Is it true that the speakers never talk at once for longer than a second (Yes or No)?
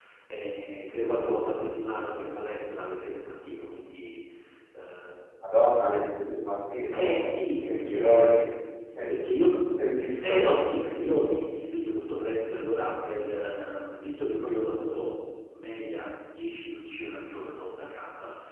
No